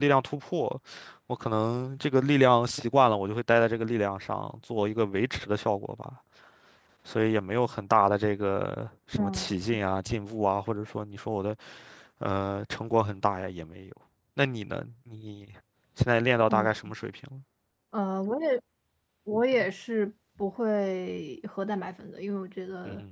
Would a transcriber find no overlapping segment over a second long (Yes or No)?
Yes